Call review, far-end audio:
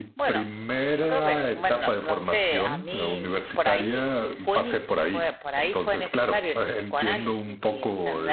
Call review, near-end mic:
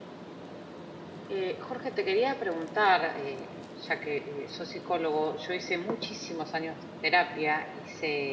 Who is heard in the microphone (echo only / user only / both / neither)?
user only